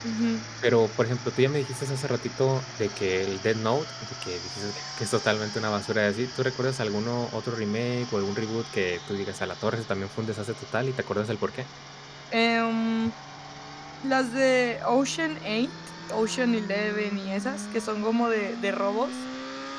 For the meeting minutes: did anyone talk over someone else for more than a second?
No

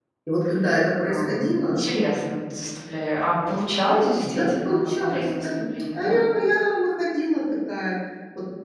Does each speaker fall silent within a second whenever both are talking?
No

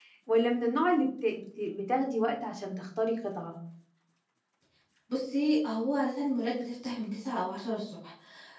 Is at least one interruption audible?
No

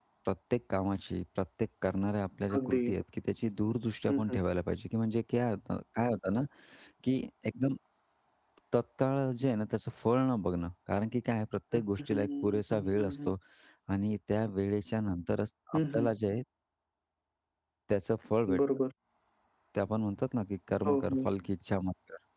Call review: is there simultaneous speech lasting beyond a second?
Yes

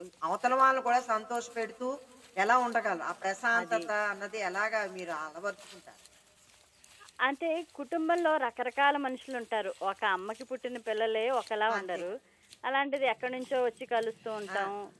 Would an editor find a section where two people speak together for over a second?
No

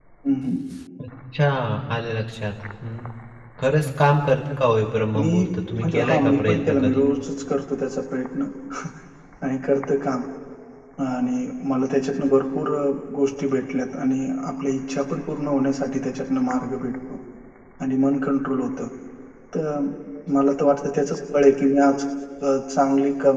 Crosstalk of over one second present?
Yes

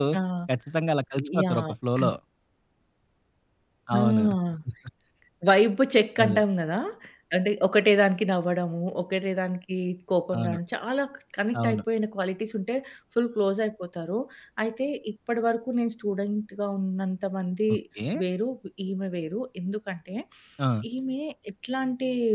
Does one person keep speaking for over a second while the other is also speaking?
No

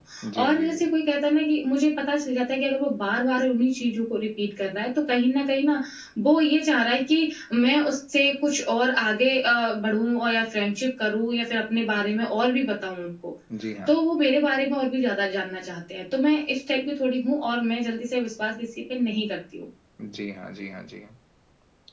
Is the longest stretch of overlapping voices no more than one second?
Yes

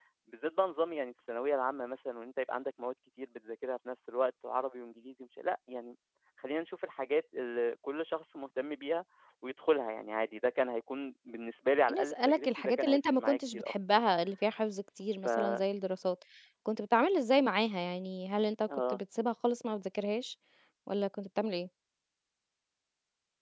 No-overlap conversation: No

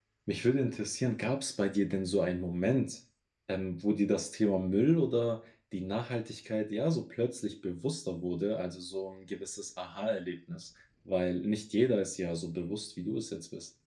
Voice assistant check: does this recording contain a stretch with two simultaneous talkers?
No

